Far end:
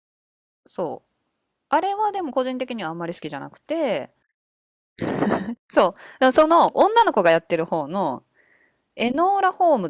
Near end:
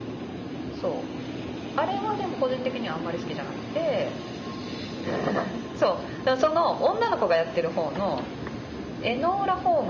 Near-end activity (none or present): none